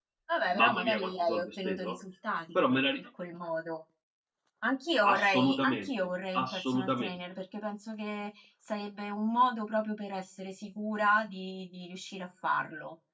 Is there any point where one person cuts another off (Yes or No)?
Yes